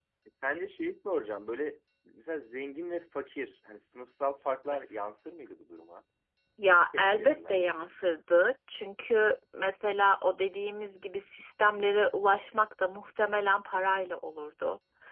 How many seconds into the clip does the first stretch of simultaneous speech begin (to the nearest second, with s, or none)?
7 s